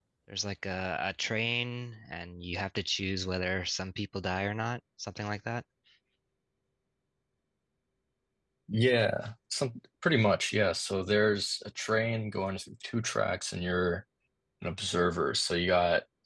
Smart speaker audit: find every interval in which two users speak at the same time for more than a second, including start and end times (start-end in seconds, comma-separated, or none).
none